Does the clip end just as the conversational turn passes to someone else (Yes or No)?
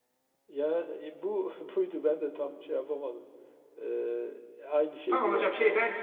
Yes